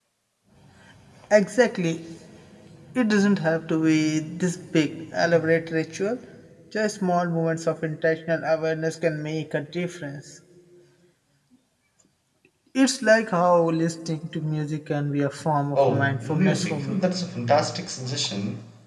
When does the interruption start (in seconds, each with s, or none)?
15.8 s